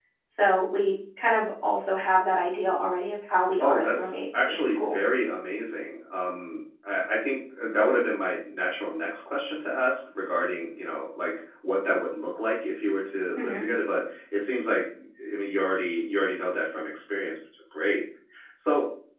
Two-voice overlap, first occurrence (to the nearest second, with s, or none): 4 s